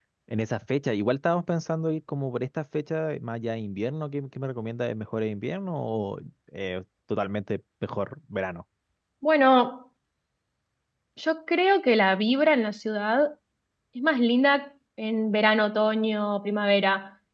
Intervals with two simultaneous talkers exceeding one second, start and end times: none

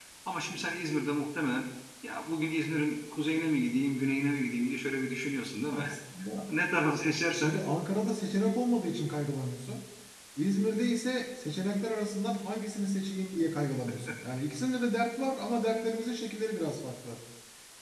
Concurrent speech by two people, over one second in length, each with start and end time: none

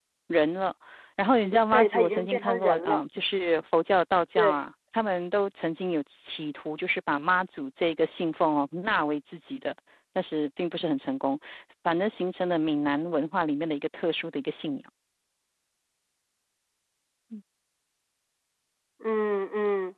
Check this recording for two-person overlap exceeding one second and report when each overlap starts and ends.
1.7-3.0

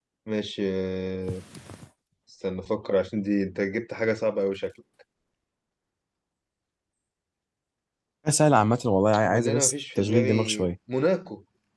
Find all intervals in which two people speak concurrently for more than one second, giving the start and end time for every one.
9.2-10.7

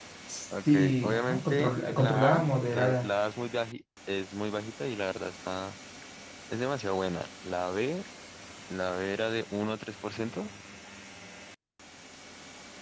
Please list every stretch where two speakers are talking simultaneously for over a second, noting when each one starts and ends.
0.7-3.1

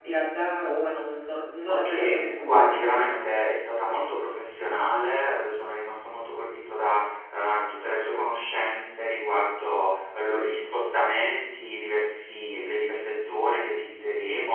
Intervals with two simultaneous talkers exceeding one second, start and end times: 1.7-3.2

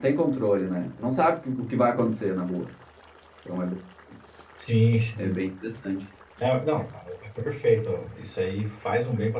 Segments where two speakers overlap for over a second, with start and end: none

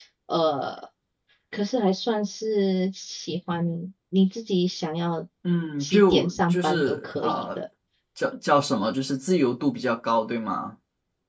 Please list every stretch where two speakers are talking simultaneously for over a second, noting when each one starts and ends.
5.8-7.6

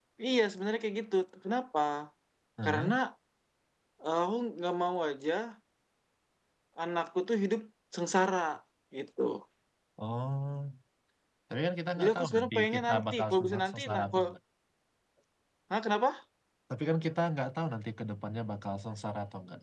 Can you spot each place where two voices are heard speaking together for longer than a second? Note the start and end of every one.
12.0-14.2

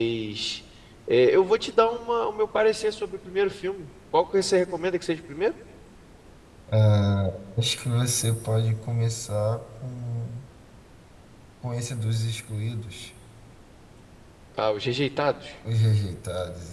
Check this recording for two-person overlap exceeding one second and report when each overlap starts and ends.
none

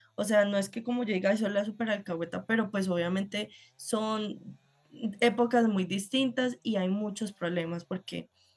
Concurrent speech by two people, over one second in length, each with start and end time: none

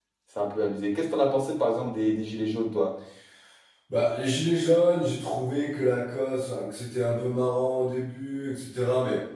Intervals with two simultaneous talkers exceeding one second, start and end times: none

